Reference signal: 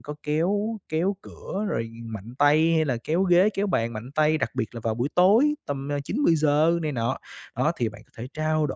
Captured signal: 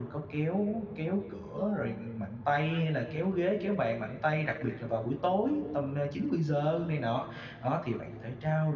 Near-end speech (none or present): present